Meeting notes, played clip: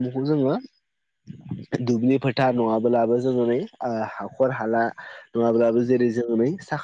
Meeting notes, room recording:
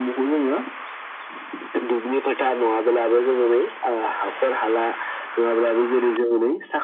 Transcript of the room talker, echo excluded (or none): none